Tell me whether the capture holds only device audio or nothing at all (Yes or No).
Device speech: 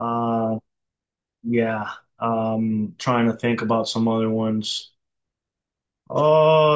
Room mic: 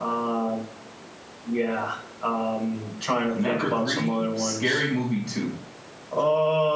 No